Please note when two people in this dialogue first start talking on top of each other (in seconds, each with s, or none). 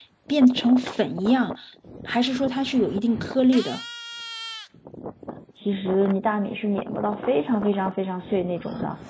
none